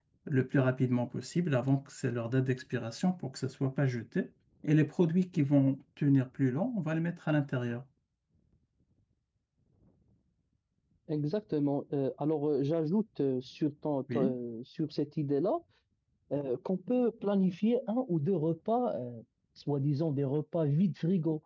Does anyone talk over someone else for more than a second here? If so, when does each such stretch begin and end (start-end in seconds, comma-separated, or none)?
none